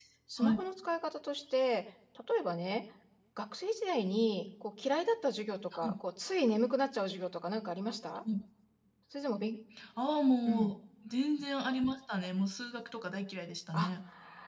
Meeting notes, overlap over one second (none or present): none